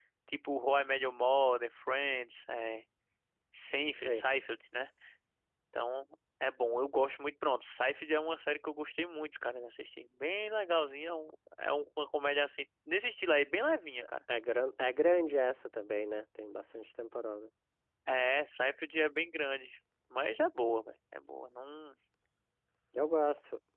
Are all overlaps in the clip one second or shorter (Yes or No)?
Yes